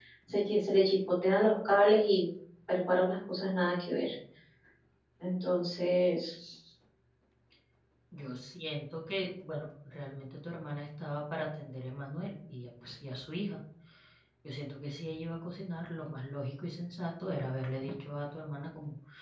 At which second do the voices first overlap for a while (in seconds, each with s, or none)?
none